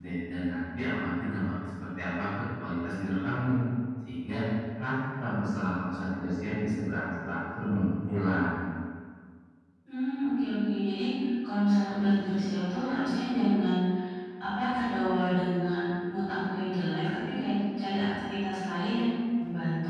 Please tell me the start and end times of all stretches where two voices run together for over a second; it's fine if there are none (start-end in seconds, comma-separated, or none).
none